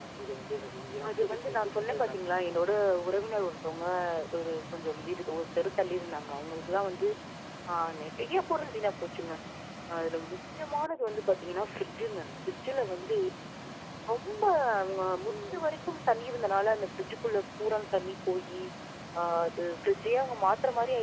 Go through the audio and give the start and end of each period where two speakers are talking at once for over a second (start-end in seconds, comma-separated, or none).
1.1-2.5